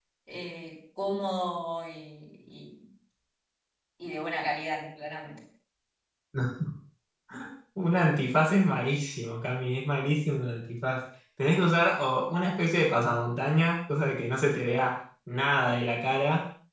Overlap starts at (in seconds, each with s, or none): none